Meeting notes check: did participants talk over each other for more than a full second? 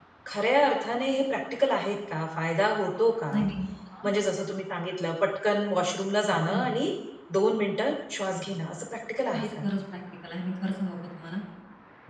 No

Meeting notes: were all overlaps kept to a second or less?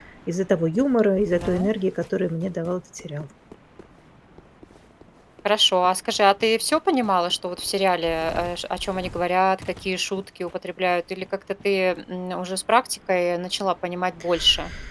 Yes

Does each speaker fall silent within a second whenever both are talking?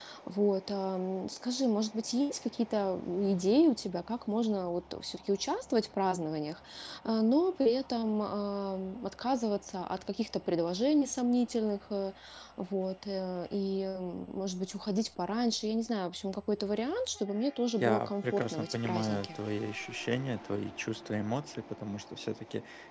No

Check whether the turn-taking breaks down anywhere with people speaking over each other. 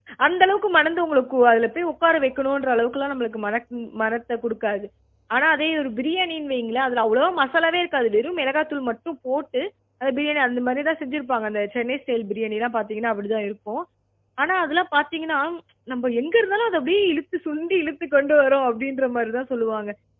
No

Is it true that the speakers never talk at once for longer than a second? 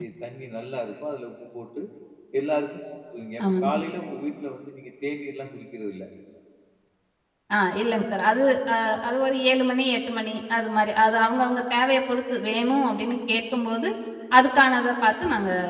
Yes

